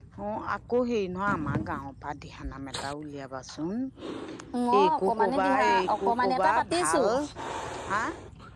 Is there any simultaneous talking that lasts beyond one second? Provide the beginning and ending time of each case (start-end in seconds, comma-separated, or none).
4.8-7.0